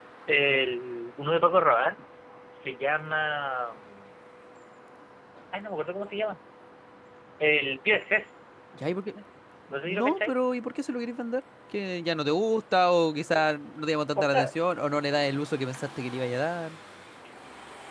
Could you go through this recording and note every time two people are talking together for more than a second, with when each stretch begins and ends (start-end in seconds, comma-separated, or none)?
none